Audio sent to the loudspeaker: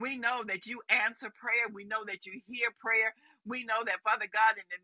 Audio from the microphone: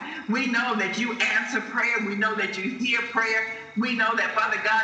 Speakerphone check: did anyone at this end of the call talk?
No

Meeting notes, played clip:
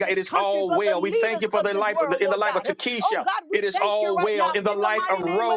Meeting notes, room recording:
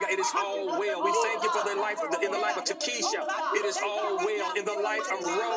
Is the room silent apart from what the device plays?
No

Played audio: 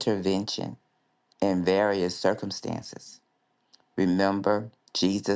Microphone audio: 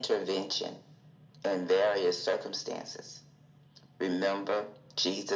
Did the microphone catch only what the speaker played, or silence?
Yes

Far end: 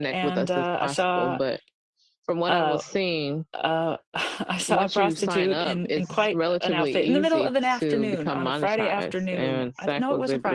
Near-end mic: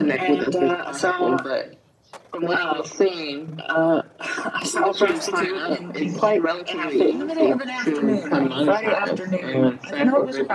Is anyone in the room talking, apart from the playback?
No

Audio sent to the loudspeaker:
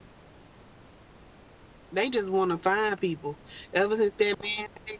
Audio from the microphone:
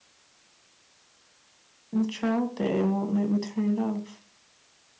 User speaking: Yes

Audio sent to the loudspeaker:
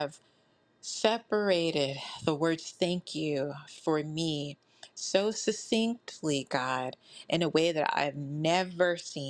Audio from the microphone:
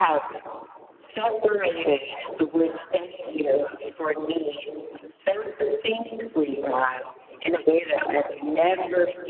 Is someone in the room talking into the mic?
No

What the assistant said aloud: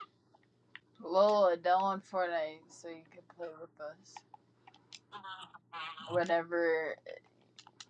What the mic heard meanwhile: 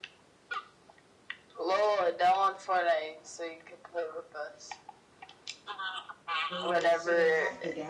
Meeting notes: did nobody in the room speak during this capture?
No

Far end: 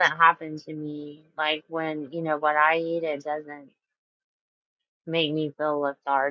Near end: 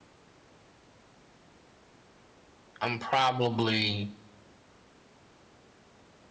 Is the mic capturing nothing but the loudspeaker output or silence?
No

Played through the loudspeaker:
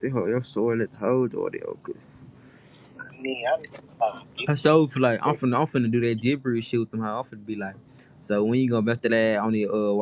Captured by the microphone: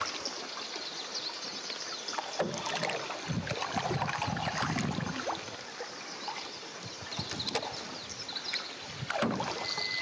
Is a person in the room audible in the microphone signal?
No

